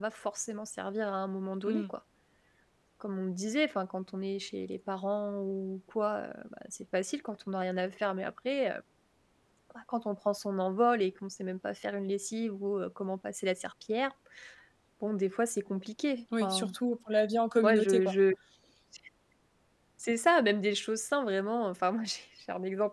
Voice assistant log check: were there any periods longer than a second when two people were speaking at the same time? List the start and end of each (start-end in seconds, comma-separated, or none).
none